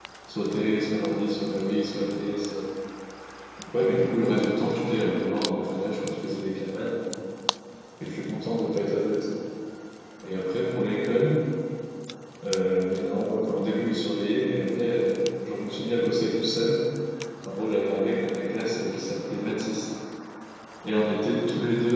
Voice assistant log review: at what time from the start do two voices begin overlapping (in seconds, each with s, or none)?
none